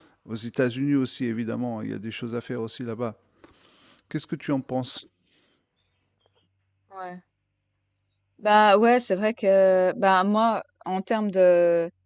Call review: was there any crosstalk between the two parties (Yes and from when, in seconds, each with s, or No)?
No